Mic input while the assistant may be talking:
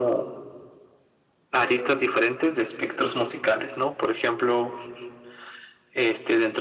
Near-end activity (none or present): present